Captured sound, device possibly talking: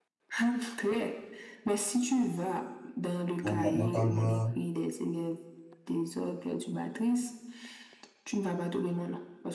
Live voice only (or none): Bon, ma- mentalement,